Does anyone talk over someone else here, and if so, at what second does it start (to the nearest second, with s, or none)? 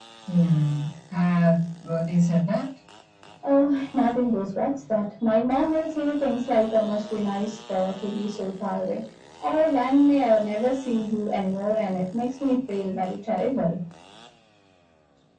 none